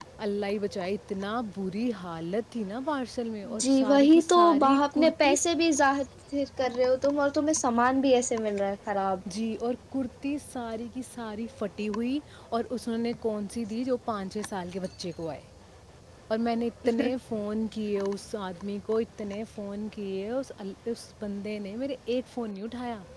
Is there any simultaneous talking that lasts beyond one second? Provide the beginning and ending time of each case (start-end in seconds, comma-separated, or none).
3.7-5.3